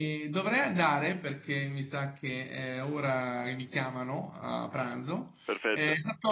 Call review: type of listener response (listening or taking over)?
listening